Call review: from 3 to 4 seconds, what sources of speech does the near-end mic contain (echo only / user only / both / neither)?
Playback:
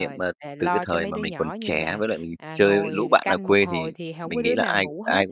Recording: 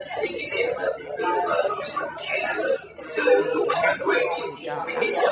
both